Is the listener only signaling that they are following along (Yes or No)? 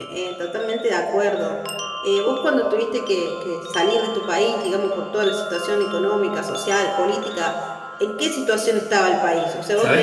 Yes